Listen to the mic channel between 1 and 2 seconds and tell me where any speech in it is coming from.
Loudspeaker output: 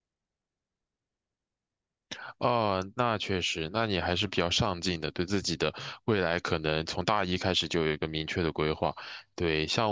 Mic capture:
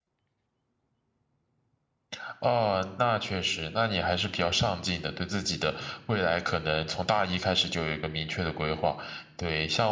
neither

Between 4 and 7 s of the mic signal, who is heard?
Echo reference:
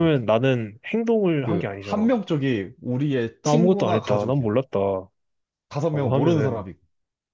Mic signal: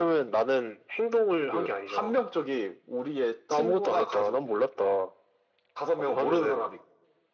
echo only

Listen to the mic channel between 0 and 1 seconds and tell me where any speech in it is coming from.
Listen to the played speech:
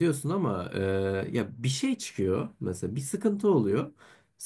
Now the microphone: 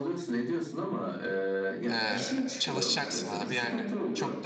echo only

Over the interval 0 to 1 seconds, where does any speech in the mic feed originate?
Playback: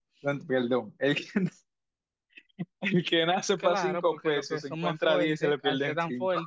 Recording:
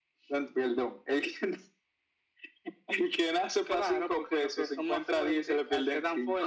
echo only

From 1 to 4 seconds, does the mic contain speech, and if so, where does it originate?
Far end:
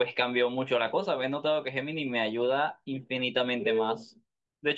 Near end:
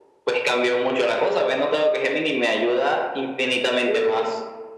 echo only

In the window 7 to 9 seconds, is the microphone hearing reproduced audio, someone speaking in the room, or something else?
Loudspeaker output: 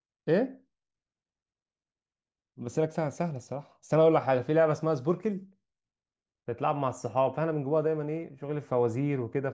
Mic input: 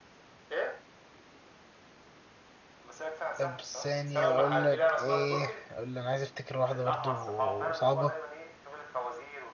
both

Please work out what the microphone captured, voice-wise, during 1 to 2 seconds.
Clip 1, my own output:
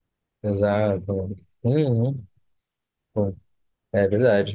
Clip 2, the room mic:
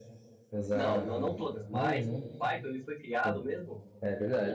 both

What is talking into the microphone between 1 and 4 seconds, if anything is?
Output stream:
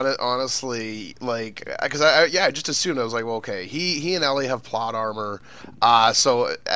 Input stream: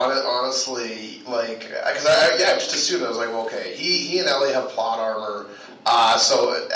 echo only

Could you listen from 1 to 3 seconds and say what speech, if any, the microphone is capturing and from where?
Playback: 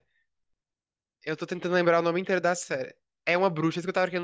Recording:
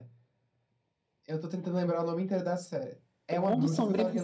echo only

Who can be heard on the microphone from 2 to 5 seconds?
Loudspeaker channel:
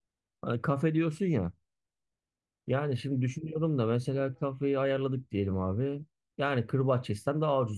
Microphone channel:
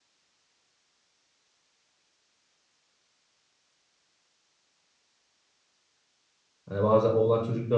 neither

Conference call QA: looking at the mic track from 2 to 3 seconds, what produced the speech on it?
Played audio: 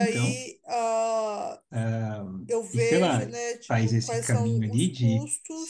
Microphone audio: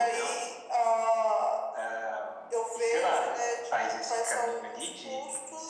echo only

